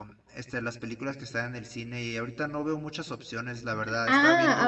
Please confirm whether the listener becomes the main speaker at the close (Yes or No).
Yes